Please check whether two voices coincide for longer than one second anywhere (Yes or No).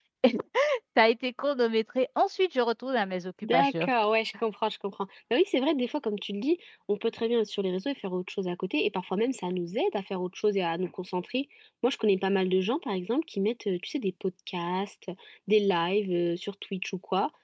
No